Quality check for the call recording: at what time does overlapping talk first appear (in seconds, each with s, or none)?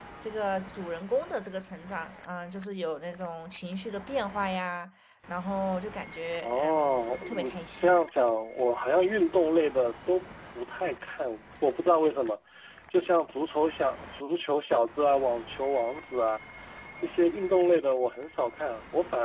6.4 s